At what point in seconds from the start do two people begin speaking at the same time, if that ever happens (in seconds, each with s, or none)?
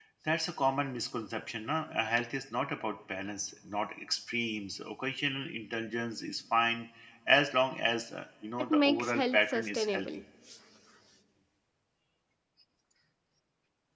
8.6 s